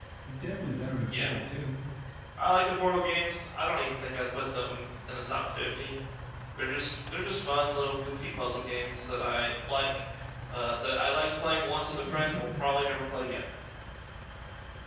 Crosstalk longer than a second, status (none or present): none